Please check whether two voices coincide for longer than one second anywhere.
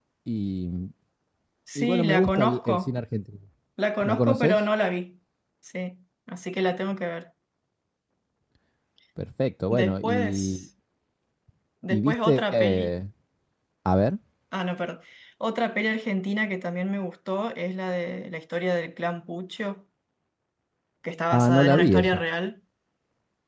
Yes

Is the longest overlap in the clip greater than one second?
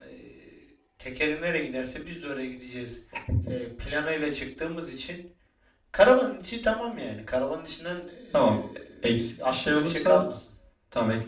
Yes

